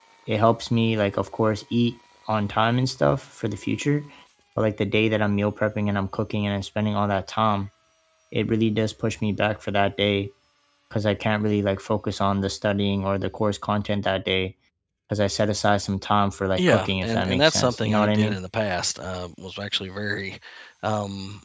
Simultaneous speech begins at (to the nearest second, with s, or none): 17 s